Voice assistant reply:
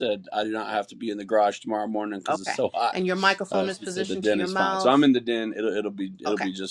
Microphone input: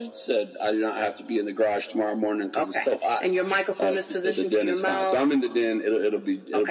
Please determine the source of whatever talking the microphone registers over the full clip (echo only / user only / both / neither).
echo only